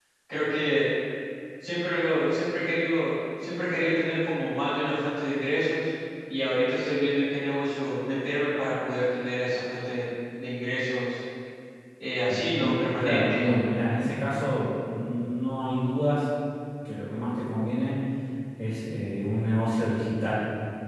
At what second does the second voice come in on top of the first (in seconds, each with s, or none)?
12.3 s